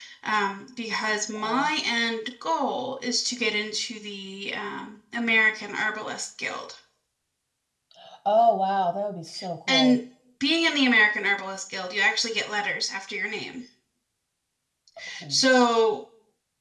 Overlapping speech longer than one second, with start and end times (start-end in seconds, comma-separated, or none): none